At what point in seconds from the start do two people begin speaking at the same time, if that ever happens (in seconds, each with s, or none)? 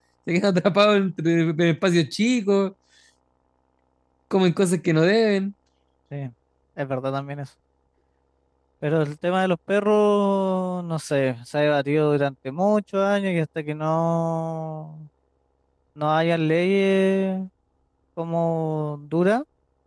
none